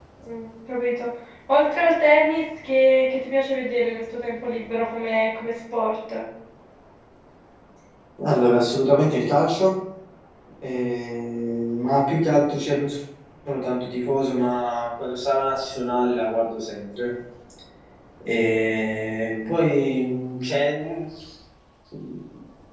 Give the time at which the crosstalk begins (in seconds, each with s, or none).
none